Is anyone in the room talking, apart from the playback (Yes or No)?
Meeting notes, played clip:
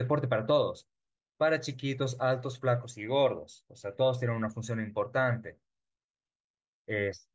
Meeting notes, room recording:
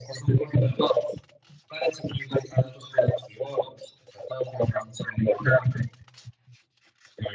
No